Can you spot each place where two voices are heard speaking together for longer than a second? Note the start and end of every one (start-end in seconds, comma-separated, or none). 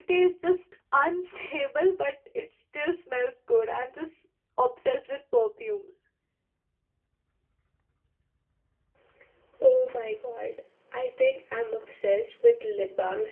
none